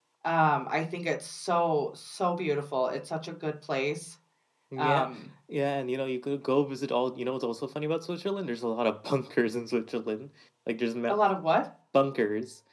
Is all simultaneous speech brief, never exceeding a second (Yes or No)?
Yes